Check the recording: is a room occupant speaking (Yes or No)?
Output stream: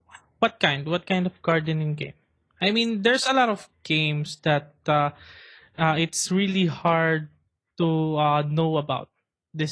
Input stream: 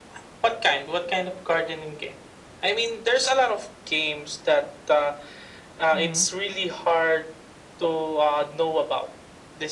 Yes